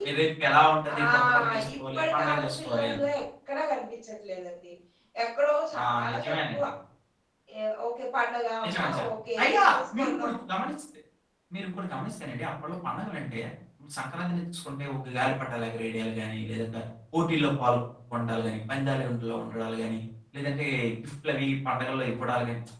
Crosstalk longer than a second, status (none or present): present